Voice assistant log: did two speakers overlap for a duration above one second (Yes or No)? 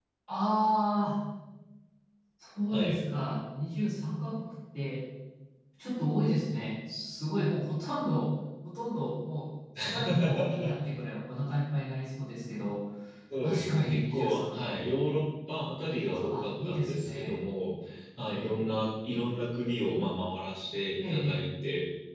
Yes